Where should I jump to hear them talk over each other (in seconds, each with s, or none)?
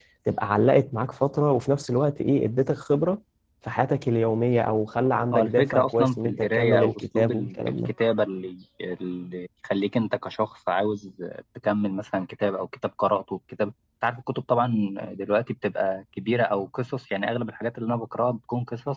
5.3 s